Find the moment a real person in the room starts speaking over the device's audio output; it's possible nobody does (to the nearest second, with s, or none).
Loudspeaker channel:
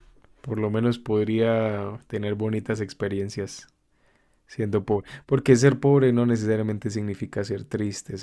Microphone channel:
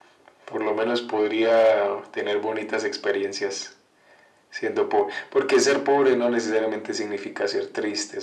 none